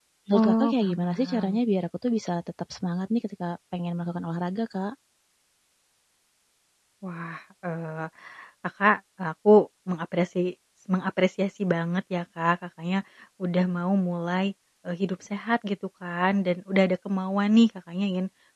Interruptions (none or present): present